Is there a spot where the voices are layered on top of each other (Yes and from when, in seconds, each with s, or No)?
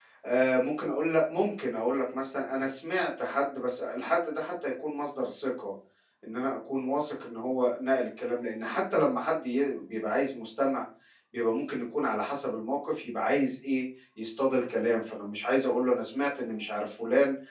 No